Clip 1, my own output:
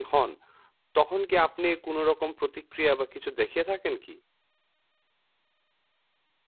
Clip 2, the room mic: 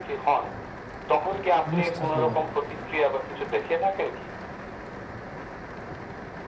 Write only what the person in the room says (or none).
বুঝতে পারলাম।